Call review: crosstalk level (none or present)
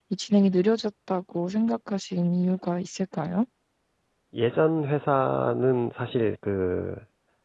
none